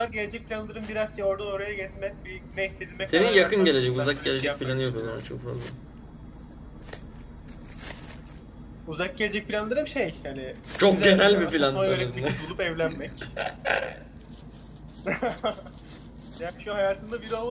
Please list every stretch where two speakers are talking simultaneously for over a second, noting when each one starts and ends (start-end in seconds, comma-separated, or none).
3.1-5.2, 10.8-12.2